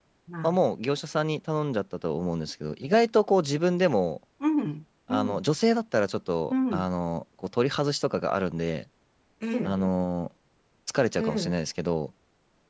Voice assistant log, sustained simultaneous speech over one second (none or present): none